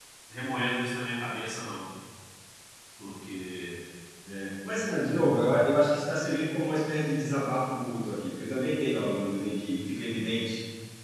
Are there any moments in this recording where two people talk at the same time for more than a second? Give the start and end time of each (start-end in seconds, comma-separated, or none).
none